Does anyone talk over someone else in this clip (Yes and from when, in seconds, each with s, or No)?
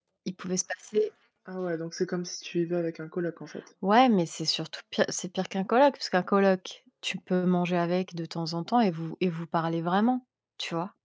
No